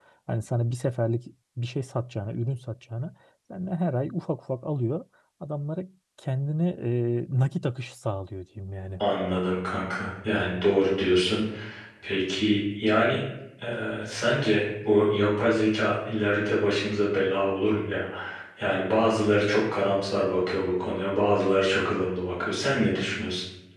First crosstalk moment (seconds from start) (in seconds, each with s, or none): none